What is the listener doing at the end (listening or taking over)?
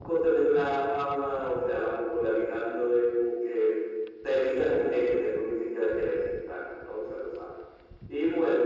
listening